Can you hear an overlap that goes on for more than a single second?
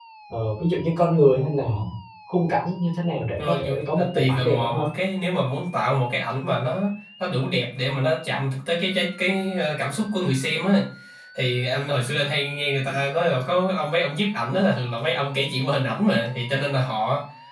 Yes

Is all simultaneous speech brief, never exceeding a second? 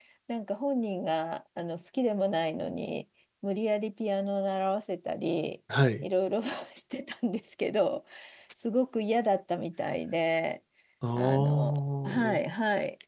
No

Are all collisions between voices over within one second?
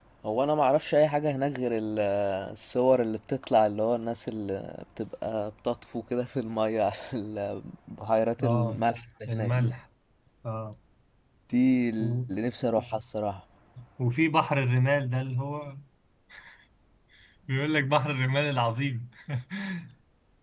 Yes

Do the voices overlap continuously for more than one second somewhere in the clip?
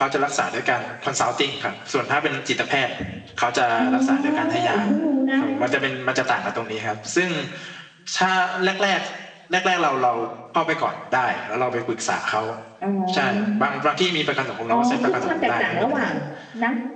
Yes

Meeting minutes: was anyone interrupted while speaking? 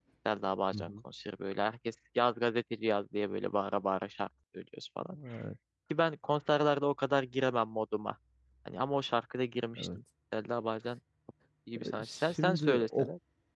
Yes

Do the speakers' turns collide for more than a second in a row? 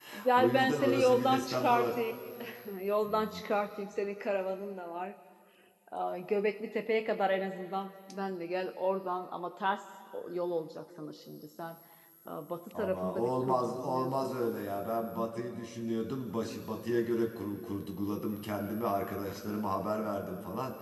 Yes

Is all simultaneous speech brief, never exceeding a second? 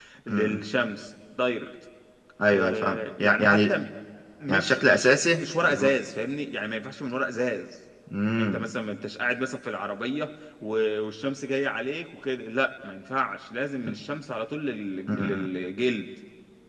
No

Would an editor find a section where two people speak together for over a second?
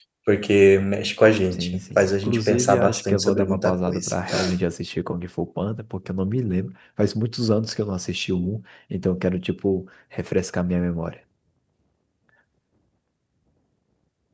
Yes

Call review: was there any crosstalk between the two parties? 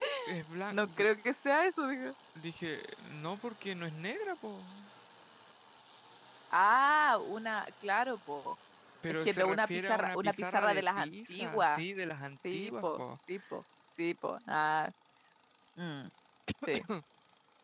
Yes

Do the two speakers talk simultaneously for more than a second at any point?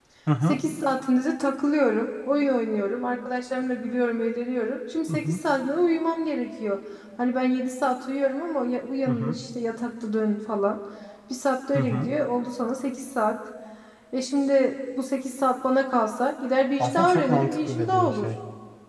Yes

